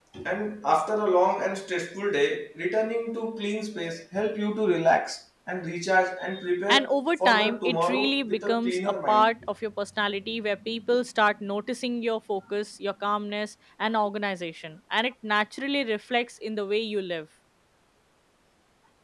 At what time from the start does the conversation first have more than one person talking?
6.7 s

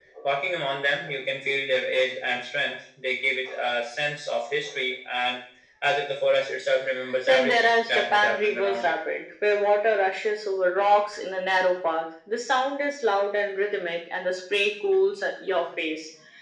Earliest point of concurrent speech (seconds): 7.3 s

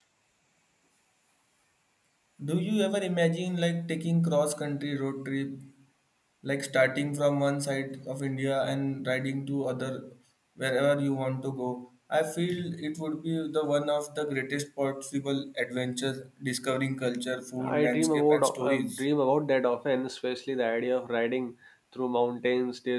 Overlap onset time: 17.6 s

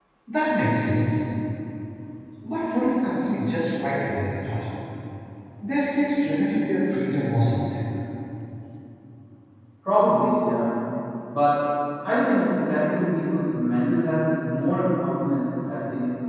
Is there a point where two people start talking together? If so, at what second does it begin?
none

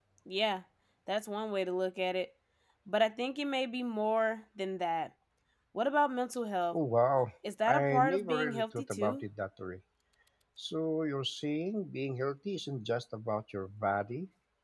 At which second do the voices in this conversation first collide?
7.6 s

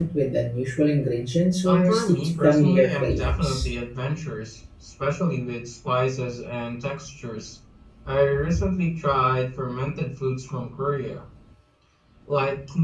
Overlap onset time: 1.6 s

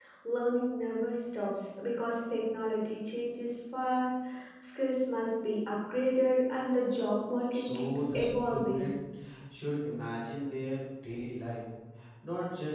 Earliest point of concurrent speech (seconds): 7.5 s

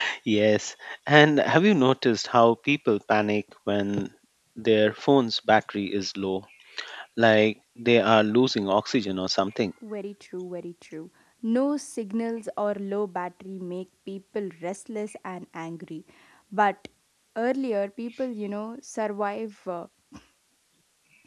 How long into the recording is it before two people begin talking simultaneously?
none

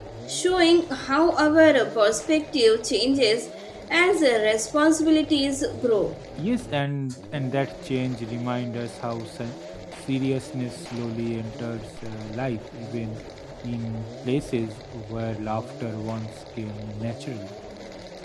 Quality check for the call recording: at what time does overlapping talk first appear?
none

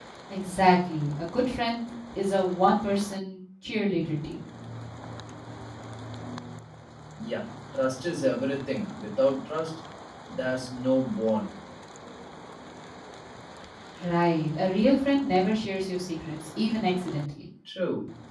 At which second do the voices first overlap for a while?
none

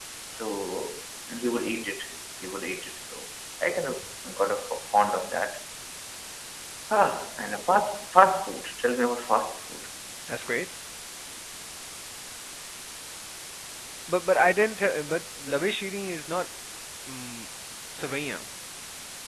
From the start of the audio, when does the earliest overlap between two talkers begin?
none

